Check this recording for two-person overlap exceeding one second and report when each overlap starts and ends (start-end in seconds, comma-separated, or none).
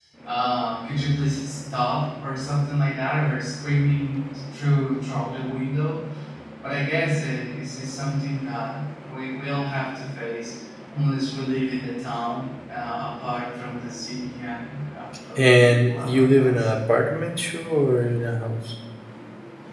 15.4-16.7